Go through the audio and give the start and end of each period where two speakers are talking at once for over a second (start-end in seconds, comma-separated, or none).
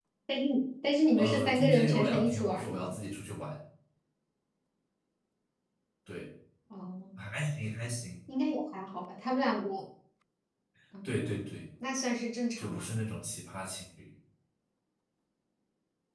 1.2-3.0